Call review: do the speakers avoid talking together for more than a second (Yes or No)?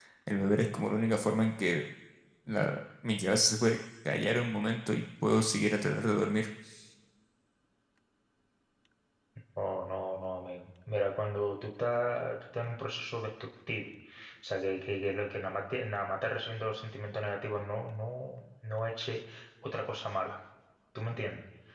Yes